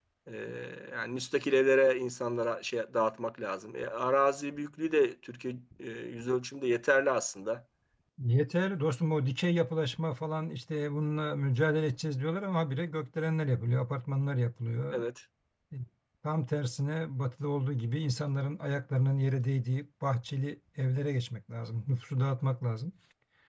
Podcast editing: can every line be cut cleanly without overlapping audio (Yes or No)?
Yes